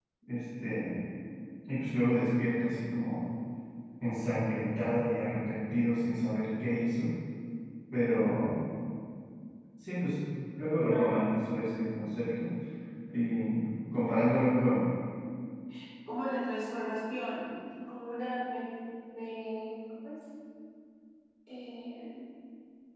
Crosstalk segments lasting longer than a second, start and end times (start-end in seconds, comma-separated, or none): none